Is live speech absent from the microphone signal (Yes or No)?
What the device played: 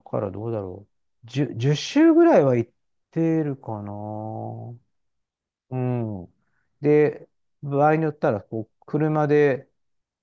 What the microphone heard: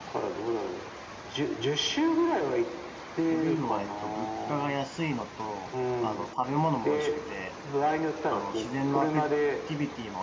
No